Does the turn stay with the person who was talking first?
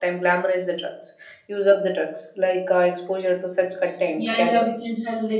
No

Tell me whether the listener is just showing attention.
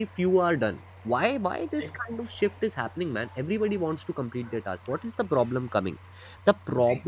Yes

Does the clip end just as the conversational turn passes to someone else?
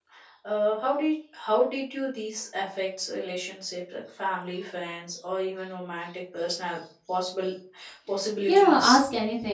Yes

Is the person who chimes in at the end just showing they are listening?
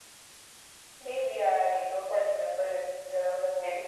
No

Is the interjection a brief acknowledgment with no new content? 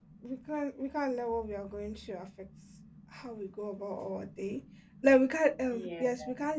Yes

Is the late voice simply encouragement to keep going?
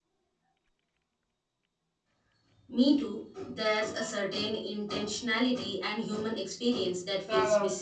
No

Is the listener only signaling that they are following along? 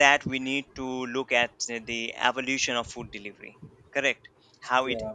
Yes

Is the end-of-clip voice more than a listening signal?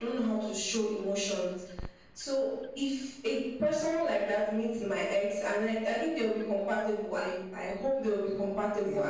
No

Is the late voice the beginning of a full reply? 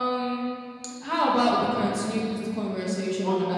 Yes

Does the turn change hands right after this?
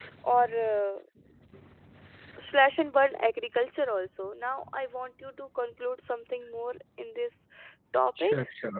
Yes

